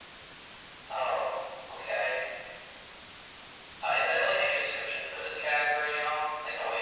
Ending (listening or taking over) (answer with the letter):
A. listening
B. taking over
B